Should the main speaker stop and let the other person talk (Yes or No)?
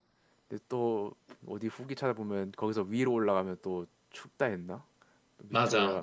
Yes